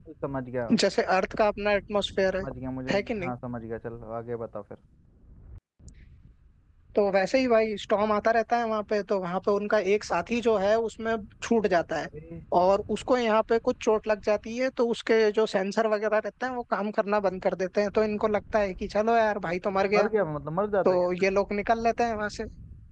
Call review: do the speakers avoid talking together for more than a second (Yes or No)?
Yes